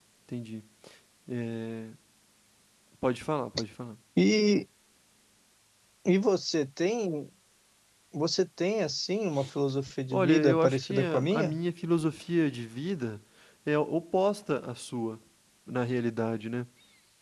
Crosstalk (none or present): present